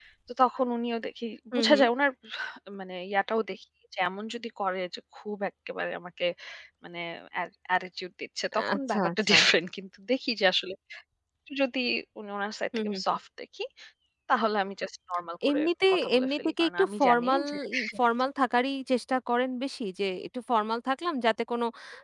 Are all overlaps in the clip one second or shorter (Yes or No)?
No